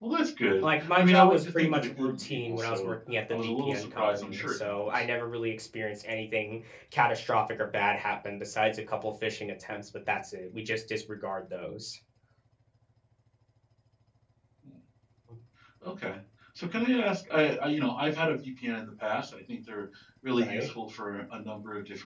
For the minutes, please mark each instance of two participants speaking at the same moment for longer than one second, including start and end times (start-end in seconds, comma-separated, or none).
0.6-2.9, 3.3-5.0